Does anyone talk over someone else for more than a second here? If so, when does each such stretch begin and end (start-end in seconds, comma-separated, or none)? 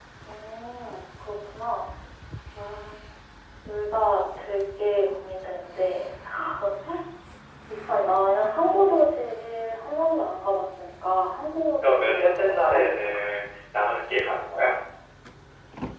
11.8-13.2